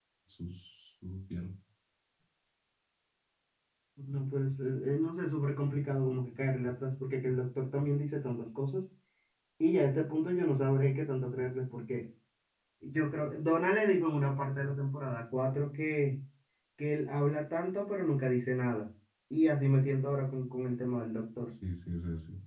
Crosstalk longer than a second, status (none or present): none